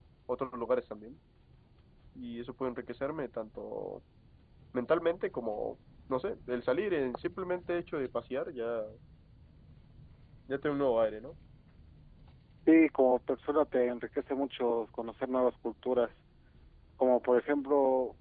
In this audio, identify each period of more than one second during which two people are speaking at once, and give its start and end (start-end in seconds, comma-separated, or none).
none